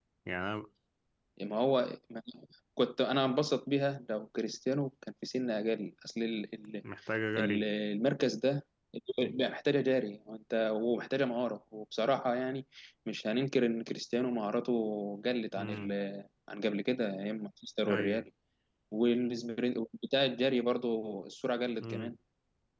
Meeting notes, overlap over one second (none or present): none